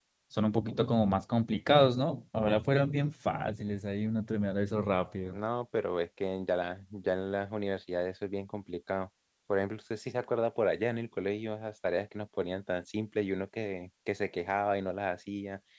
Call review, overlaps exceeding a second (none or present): none